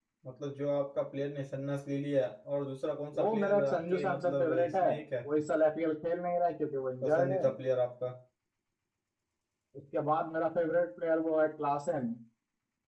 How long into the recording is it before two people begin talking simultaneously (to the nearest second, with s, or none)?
3 s